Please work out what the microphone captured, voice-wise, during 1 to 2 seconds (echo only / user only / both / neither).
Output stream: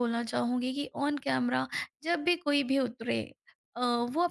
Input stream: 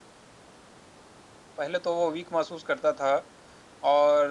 user only